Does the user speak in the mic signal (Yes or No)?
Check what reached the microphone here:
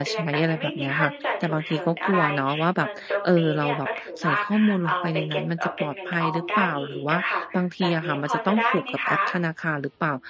Yes